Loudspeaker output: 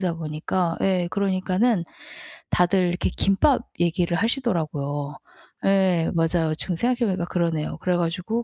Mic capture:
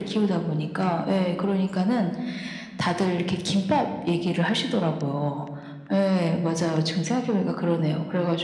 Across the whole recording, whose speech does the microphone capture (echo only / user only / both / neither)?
echo only